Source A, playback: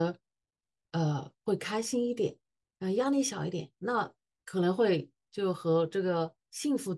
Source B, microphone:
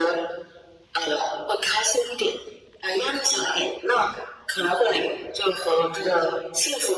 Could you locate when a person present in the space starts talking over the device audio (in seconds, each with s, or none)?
none